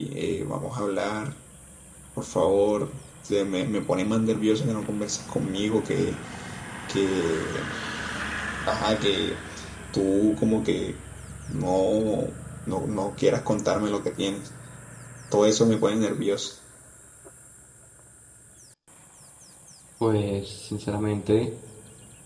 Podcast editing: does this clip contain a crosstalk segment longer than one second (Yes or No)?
No